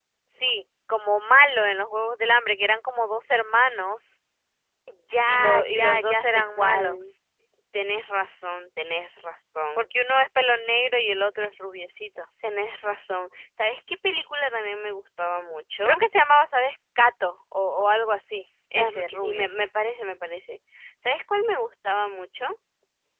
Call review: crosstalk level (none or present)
present